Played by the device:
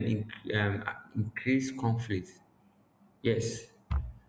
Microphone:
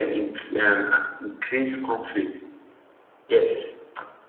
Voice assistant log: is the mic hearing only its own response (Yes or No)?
Yes